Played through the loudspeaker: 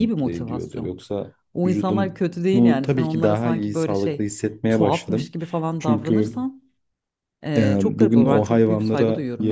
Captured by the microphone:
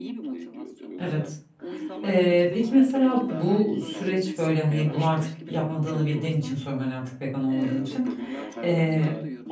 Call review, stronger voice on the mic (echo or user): user